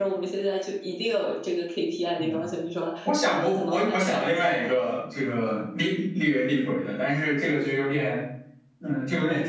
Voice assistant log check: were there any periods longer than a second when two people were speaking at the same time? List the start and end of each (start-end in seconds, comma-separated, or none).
3.2-4.4